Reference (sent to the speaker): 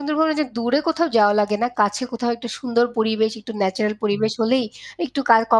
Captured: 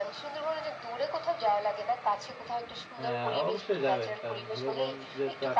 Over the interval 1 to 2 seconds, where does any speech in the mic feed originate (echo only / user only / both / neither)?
echo only